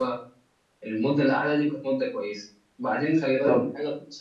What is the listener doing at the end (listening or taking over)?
listening